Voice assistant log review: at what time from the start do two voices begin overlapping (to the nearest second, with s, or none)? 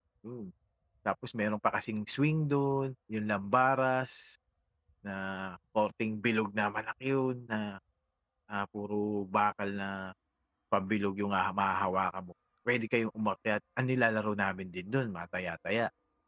none